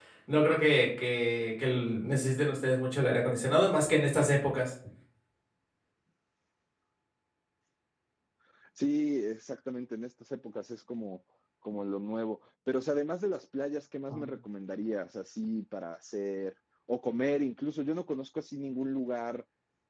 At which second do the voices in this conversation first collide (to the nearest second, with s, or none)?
none